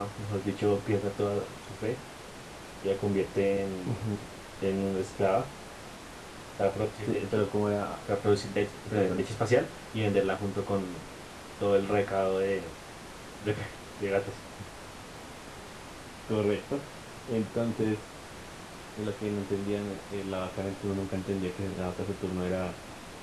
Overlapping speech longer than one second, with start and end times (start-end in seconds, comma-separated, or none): none